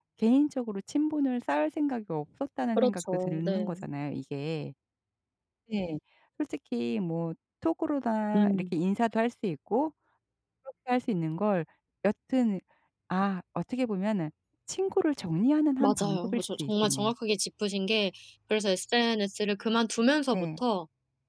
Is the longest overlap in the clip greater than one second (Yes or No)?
Yes